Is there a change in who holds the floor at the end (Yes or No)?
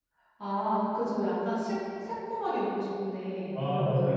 Yes